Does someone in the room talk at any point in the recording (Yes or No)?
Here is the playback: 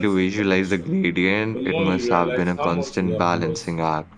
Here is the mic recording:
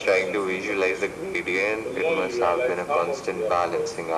No